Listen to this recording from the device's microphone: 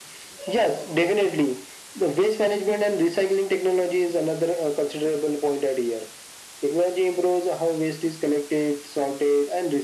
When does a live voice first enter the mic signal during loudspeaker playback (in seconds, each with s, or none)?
none